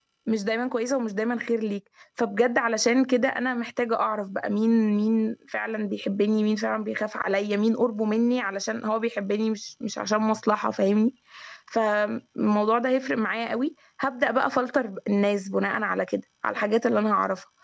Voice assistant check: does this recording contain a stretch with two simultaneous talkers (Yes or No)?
No